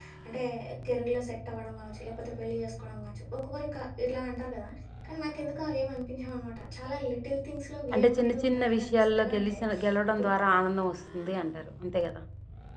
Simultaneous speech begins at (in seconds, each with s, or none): 7.9 s